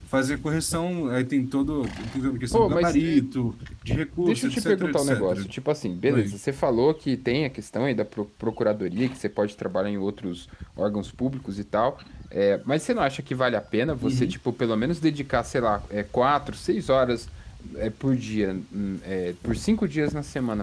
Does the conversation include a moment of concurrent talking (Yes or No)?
Yes